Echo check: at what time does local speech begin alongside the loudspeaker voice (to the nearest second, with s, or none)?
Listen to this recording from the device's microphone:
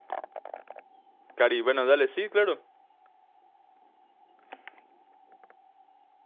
1 s